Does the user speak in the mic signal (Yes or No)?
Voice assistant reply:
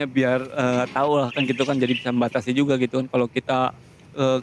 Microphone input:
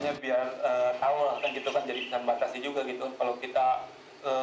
No